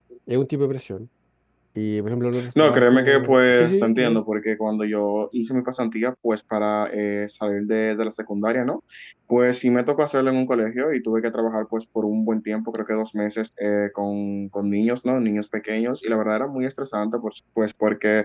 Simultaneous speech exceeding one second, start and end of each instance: 2.6-4.2

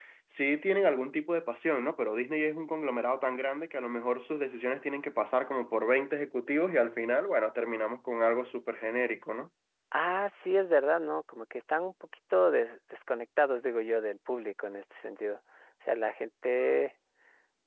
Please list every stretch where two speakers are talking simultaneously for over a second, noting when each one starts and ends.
none

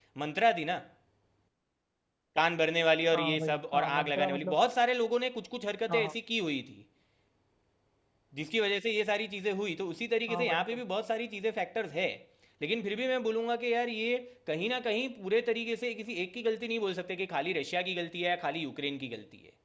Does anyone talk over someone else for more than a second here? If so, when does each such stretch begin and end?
3.1-4.5

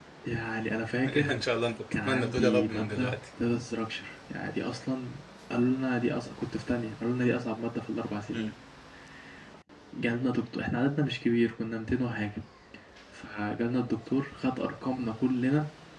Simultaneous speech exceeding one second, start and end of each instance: 1.9-3.2

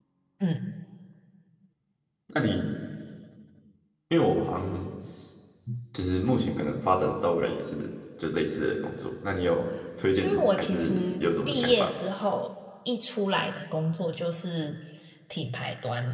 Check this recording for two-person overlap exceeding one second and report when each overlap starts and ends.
10.2-11.9

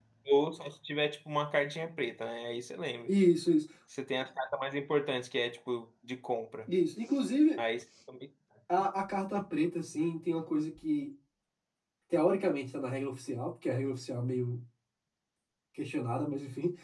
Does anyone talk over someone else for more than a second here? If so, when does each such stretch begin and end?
none

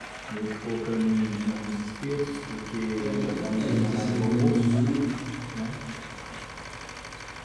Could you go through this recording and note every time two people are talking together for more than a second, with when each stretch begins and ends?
3.0-4.8

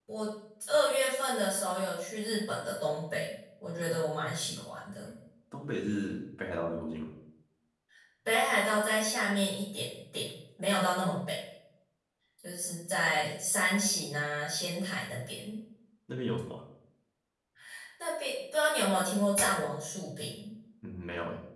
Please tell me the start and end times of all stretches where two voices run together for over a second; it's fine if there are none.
none

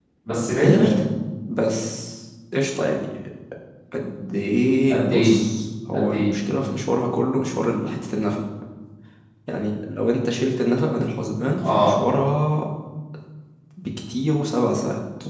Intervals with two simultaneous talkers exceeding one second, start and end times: none

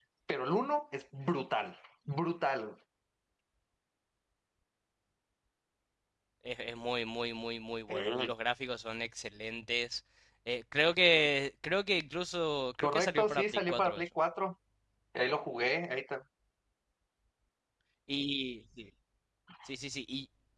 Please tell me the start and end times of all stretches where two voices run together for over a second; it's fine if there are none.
12.8-14.1

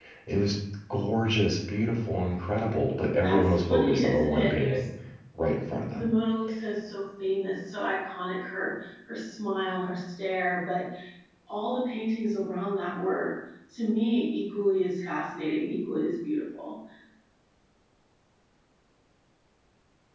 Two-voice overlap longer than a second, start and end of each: 3.2-4.9

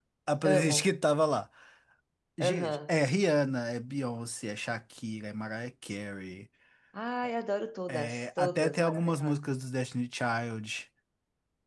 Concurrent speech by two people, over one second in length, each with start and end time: 7.9-9.4

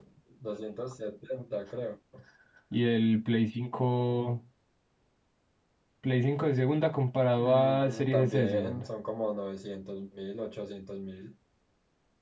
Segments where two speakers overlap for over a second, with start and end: 7.4-8.8

